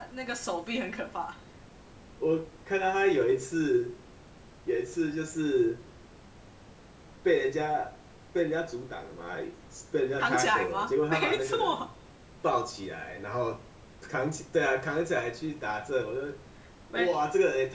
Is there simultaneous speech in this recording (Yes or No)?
Yes